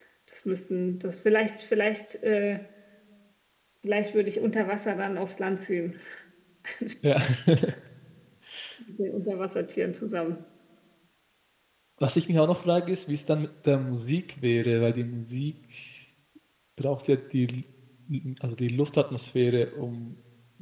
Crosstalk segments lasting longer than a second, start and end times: none

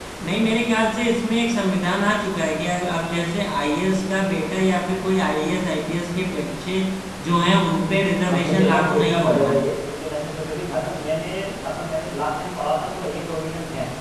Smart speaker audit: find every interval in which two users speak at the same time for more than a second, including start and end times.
8.2-9.5

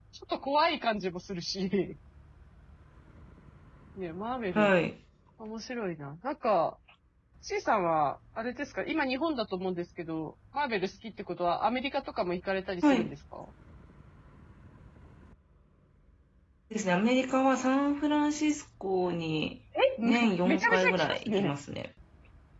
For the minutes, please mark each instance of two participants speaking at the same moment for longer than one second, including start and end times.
20.1-21.6

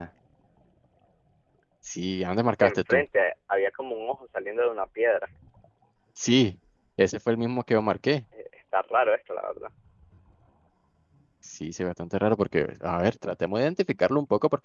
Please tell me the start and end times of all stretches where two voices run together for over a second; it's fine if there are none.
none

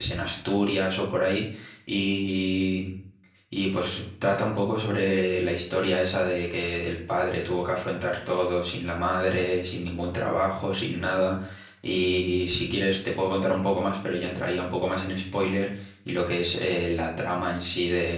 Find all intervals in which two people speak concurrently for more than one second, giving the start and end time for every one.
none

